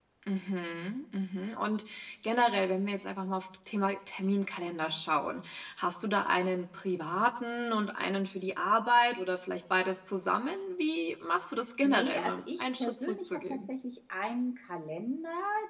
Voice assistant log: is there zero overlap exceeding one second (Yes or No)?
No